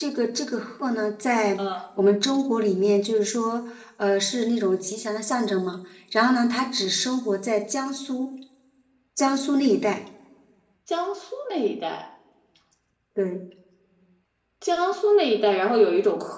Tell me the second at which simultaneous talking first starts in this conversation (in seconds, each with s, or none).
none